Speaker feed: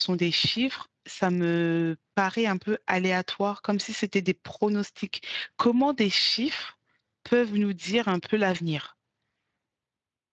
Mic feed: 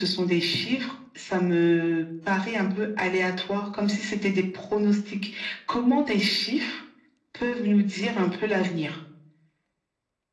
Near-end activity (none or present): none